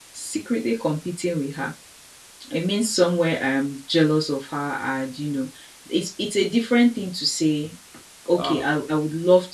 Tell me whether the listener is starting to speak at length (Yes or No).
No